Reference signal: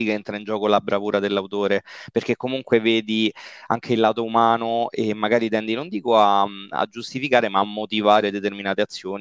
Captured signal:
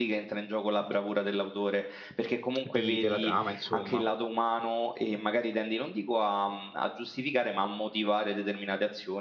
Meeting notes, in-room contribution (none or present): present